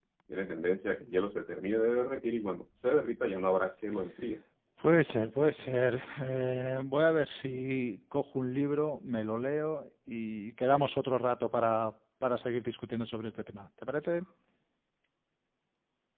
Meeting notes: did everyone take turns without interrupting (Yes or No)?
Yes